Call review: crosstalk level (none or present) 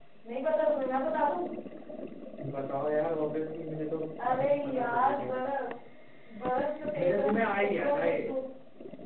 present